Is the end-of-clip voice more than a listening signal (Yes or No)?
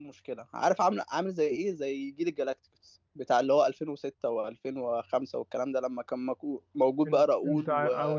Yes